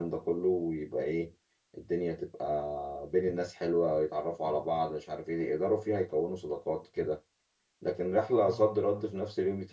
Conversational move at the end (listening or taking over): listening